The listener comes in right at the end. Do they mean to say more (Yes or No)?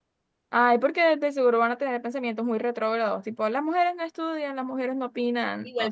Yes